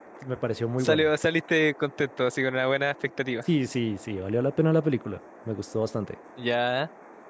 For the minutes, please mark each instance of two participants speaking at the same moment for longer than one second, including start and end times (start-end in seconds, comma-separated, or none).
none